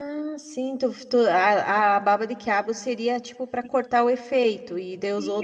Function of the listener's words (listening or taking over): taking over